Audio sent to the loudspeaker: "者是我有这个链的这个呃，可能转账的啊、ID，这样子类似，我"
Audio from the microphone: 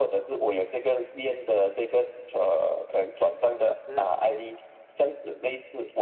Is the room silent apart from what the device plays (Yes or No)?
No